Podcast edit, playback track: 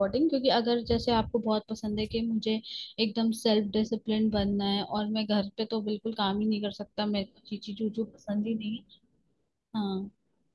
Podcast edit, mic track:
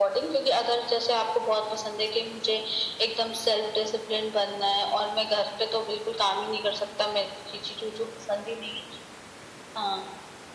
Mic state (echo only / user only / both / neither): echo only